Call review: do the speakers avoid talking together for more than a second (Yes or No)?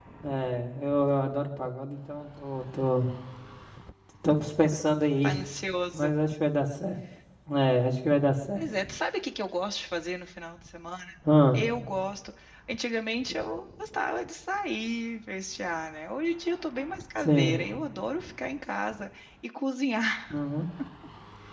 Yes